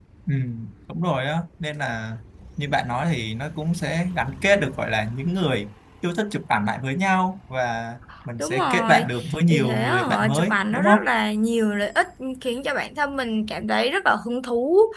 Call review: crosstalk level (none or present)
present